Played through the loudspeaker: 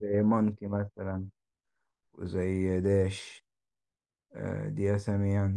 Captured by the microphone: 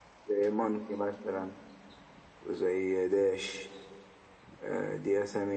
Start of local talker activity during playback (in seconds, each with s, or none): none